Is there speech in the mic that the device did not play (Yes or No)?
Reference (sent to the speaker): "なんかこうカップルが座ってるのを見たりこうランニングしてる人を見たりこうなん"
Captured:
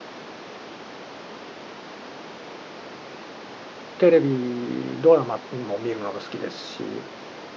Yes